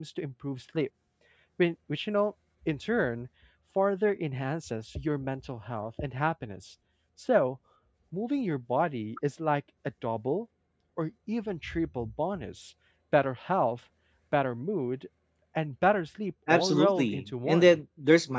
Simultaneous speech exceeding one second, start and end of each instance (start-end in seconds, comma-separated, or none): 16.5-17.8